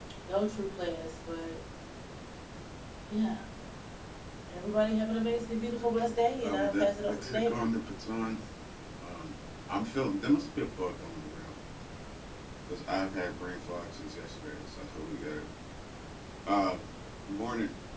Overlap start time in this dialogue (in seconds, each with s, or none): 6.4 s